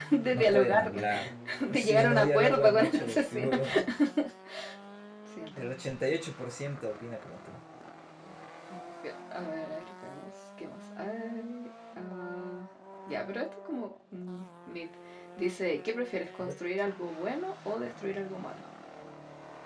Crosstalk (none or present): present